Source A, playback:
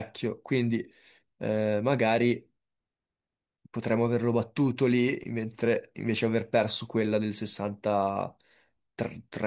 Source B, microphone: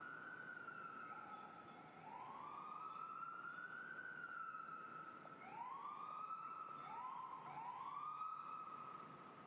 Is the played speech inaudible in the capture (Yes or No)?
Yes